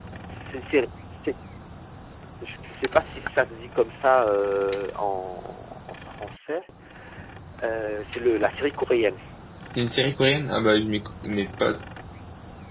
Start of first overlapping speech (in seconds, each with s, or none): none